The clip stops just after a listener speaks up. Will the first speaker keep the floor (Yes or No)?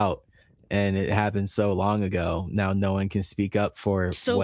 No